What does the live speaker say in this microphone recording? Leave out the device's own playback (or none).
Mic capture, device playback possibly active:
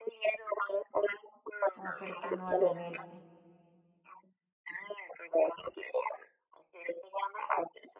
മോട്ടർ അടിക്കൊന്നും വാണ്ടല്ലോ നേരിട്ട്